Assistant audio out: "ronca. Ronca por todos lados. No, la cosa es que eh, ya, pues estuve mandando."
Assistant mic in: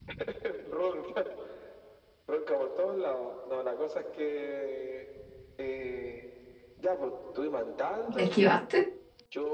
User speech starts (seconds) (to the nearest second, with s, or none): 8 s